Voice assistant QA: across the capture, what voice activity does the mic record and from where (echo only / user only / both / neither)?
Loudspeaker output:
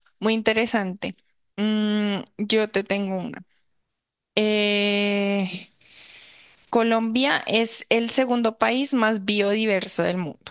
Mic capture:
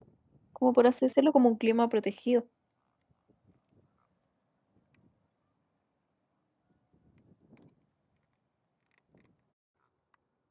user only